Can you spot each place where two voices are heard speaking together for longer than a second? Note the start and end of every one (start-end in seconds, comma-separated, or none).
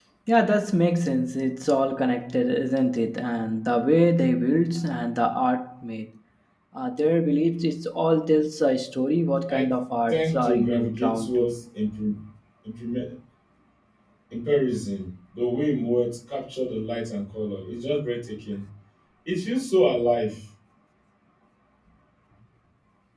10.1-11.5